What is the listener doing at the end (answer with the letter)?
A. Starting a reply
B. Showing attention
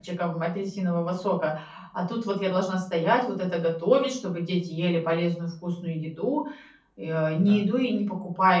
B